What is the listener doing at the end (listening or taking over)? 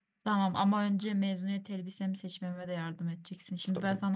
listening